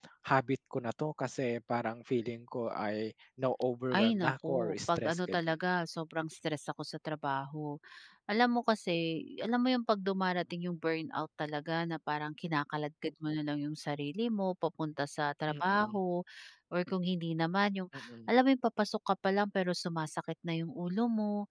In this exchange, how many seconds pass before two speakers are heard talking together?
3.9 s

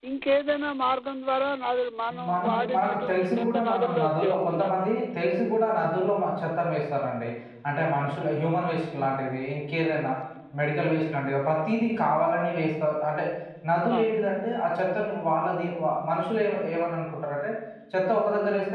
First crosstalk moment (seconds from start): 2.3 s

